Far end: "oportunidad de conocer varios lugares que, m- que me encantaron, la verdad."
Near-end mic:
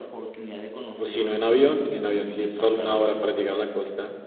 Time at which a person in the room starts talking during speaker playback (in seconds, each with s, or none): 0.9 s